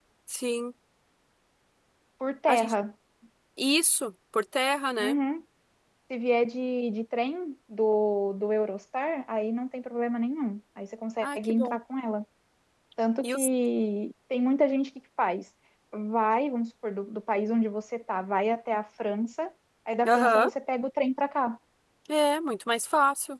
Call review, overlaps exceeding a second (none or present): none